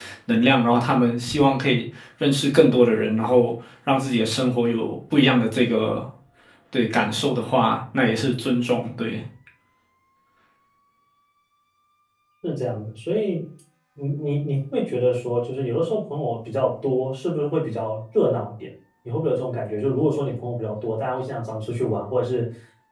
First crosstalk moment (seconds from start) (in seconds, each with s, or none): none